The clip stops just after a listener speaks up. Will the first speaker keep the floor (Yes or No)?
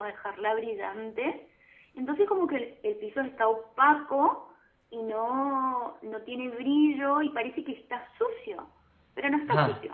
No